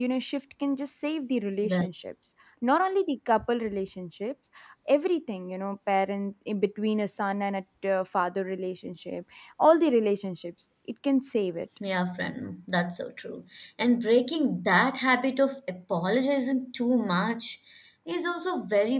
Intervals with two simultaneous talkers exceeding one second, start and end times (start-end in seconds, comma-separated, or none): none